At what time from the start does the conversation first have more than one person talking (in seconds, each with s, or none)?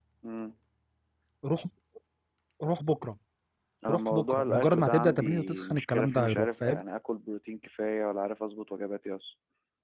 3.9 s